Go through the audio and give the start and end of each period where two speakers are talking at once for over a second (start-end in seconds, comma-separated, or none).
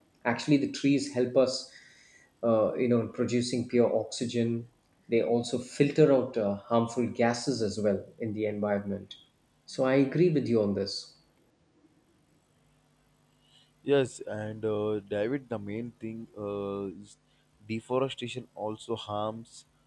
none